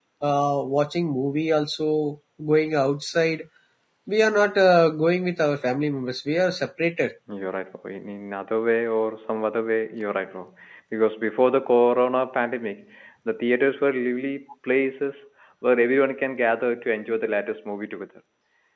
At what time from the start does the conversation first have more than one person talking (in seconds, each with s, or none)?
none